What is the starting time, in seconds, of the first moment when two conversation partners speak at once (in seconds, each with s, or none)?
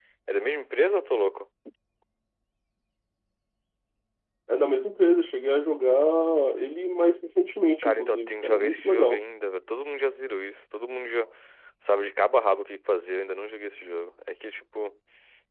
7.8 s